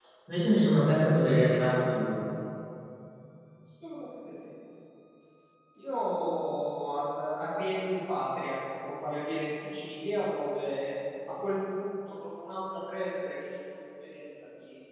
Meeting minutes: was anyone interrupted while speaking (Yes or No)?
No